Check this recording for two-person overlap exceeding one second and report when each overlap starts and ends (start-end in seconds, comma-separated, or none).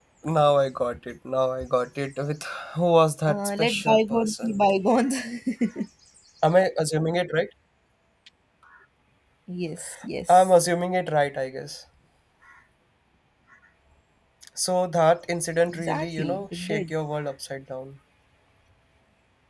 3.3-4.6, 15.7-16.9